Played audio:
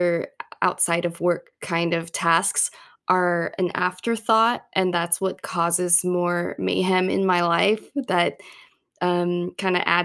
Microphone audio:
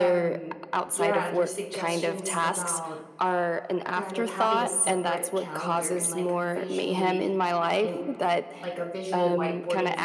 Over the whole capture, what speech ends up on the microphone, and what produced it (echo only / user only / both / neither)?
both